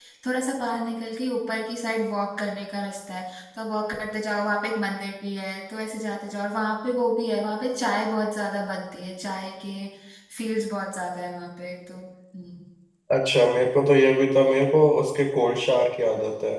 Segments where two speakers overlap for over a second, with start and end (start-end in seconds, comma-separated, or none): none